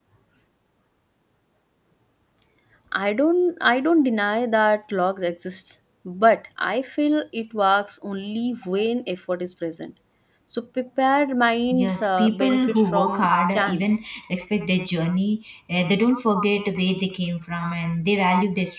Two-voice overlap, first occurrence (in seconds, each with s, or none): 11.7 s